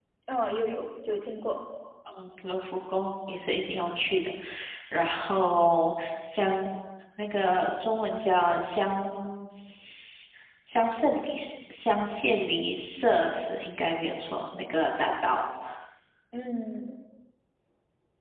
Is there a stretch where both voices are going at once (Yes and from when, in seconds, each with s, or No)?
No